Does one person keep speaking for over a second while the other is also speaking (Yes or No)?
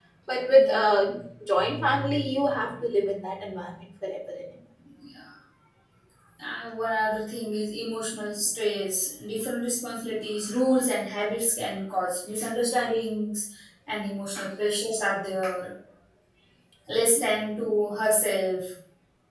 No